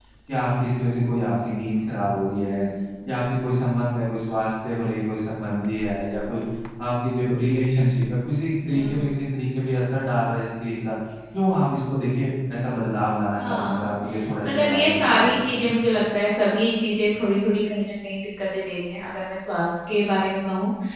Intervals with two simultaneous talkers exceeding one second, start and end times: 14.4-15.7

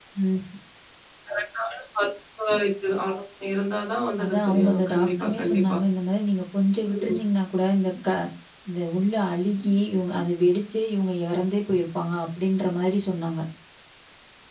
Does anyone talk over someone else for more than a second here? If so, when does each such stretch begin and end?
4.2-5.8

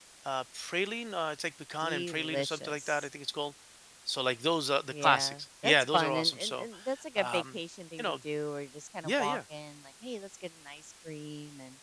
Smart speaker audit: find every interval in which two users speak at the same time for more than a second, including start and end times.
1.8-3.1, 4.9-6.7

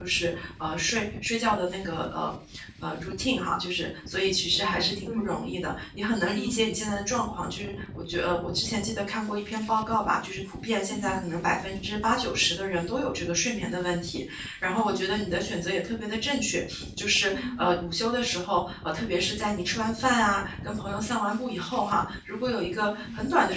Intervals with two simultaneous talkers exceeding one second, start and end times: none

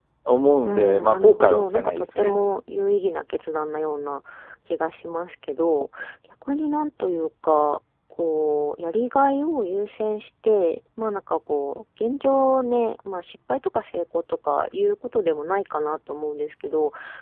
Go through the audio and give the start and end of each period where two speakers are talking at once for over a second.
0.6-2.3

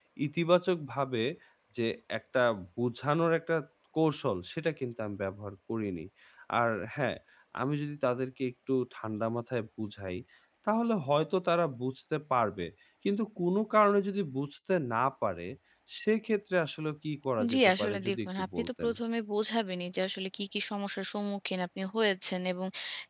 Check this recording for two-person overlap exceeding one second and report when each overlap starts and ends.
17.5-18.9

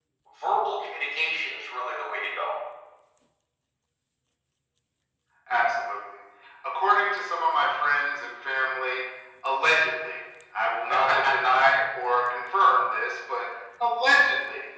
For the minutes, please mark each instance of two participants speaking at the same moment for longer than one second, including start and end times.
none

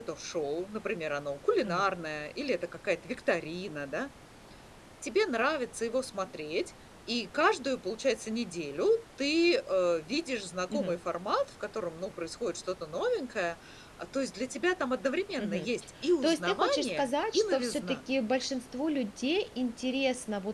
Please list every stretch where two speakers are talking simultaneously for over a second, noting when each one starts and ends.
16.2-18.0

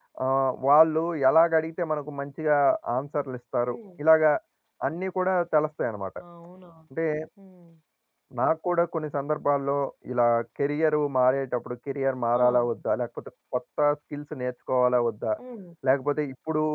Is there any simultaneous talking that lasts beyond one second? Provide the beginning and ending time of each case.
none

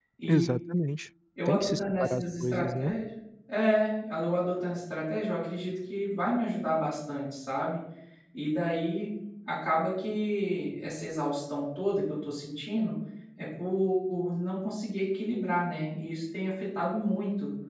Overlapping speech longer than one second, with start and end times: 1.5-2.9

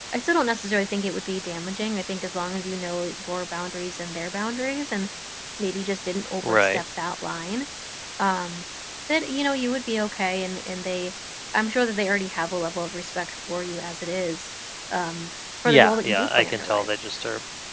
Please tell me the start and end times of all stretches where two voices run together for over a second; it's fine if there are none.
15.6-16.9

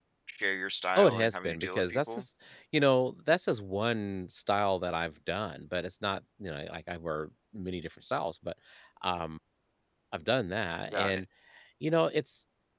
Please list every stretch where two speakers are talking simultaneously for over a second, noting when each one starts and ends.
1.0-2.2

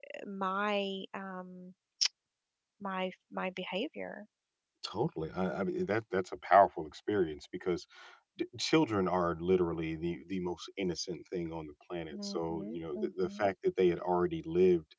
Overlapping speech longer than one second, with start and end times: 12.1-13.4

